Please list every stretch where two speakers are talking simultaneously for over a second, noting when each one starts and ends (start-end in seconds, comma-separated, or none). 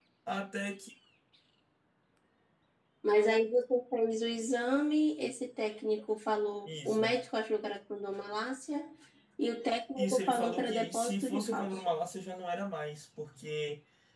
10.0-11.9